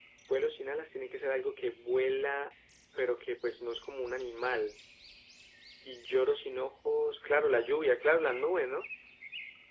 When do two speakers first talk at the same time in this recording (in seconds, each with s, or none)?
none